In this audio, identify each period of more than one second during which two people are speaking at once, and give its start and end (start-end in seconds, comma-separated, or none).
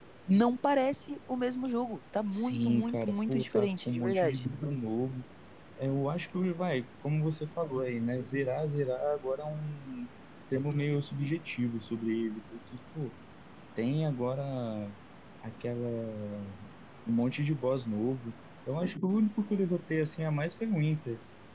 2.3-4.4